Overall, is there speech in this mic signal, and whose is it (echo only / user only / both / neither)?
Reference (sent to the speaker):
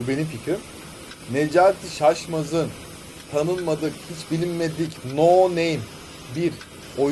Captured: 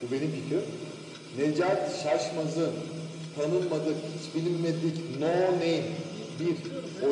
both